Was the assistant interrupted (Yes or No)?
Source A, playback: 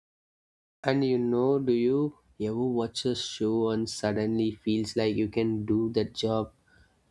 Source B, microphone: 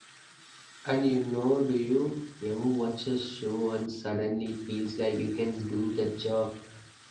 No